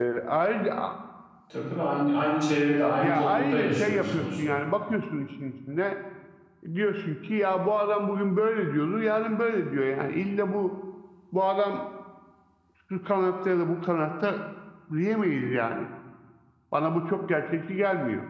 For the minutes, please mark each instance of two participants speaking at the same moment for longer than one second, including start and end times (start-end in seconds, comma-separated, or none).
3.0-4.6